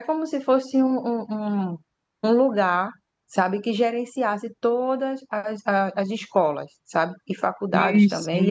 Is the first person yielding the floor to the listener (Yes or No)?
No